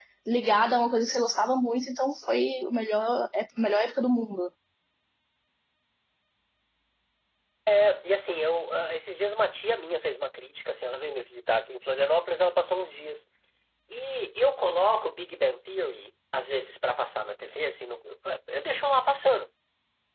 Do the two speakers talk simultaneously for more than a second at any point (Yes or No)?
No